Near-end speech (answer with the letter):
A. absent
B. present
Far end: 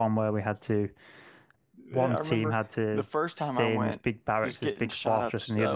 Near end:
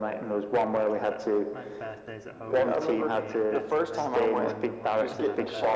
B